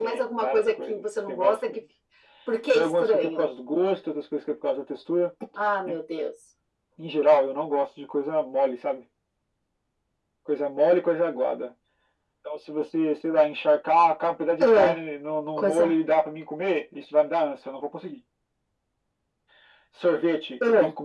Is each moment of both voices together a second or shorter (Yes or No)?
No